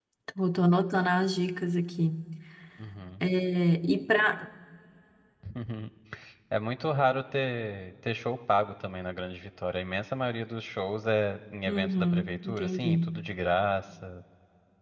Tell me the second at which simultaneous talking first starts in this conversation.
12 s

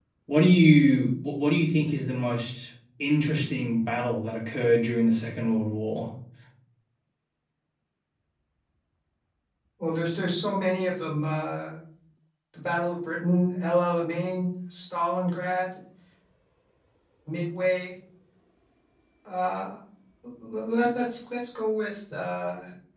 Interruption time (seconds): none

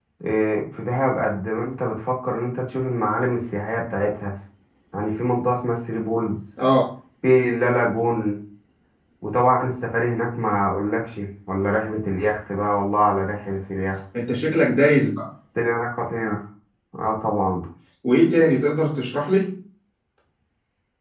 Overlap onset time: none

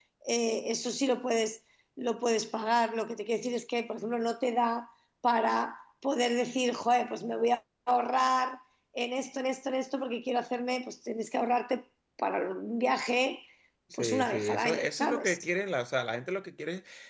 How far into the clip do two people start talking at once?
14 s

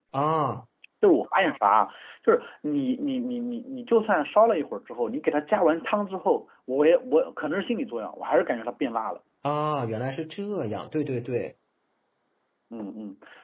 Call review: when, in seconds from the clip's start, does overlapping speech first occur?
none

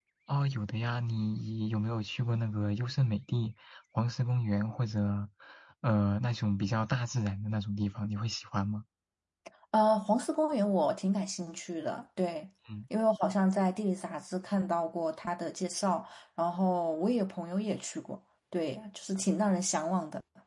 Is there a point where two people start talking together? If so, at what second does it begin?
none

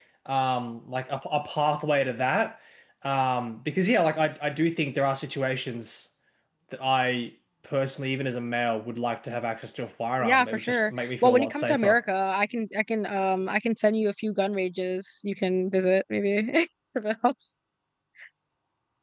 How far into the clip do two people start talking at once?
10 s

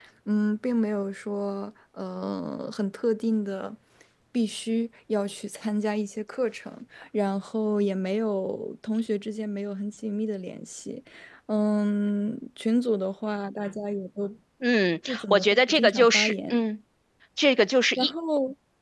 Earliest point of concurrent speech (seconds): 15 s

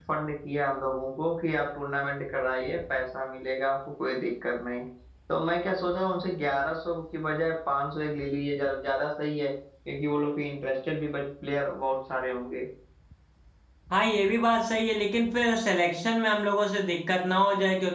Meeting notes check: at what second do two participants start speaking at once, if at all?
none

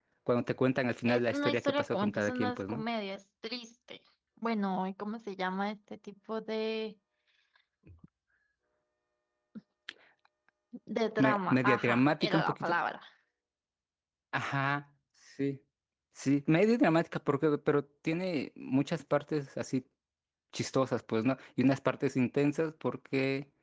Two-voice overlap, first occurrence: 1 s

